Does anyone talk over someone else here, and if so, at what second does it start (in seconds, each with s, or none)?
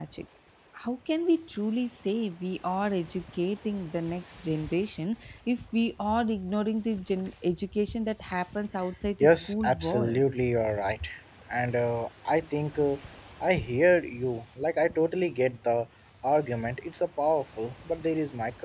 9.2 s